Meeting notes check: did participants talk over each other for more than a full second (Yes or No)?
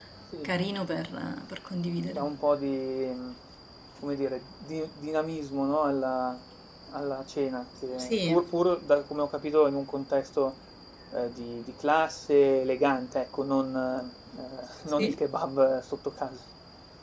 No